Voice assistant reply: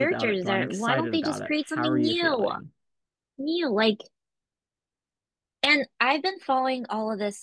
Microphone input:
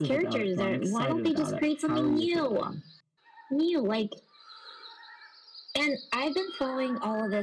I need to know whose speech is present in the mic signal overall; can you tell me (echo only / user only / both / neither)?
echo only